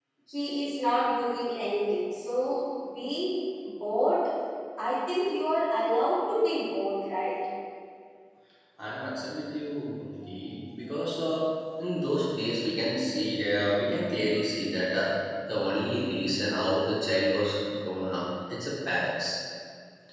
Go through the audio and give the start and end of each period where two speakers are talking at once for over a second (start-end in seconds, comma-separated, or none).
none